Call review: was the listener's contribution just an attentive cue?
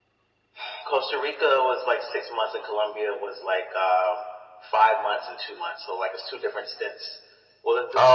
Yes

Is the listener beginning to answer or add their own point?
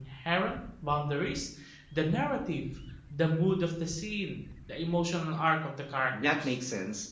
Yes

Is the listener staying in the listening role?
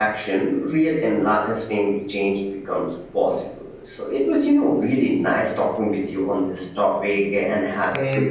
No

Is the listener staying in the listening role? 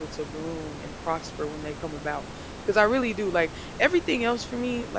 Yes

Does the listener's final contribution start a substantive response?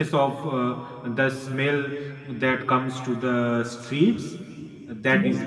No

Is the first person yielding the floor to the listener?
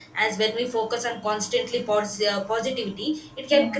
No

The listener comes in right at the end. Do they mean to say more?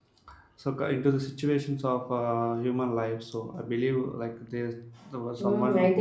Yes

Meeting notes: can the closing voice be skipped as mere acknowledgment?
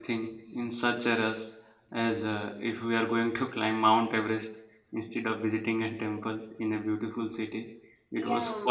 Yes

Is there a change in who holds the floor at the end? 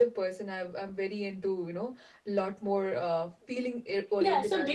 Yes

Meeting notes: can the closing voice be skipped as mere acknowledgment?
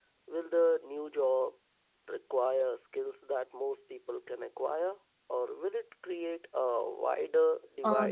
No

